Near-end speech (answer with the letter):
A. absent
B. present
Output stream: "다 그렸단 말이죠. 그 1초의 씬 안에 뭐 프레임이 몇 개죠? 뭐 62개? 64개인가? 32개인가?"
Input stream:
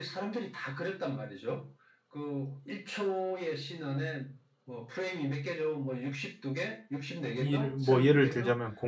B